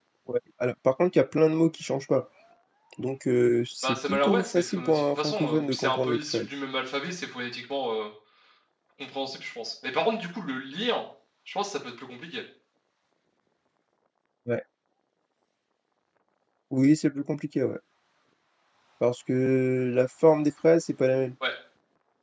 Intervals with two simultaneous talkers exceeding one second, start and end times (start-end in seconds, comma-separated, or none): 3.8-6.4